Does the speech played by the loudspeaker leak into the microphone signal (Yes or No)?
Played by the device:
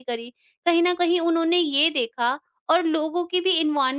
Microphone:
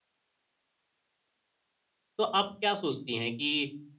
No